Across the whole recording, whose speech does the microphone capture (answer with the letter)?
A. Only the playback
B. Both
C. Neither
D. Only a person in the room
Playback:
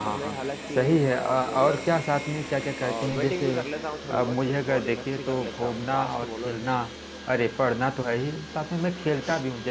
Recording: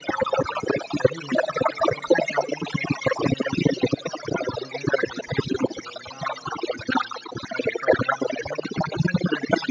A